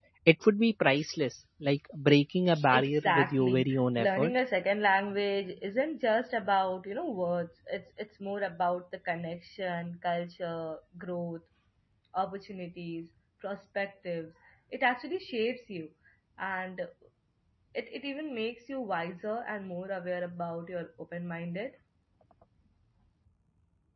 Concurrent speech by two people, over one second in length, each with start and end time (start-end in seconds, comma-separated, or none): 2.7-4.3